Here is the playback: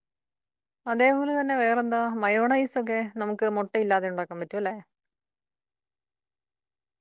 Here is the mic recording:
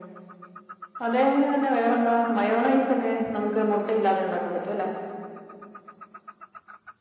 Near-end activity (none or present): none